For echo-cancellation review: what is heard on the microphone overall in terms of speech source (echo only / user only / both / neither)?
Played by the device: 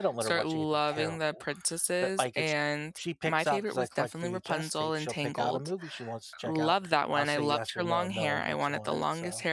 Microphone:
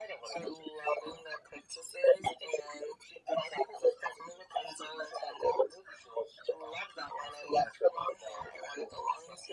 echo only